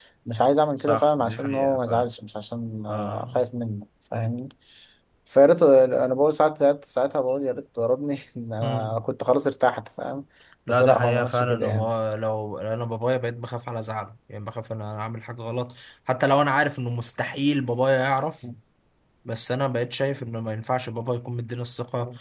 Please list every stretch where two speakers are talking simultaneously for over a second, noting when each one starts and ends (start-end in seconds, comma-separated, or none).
0.8-2.1, 10.7-11.9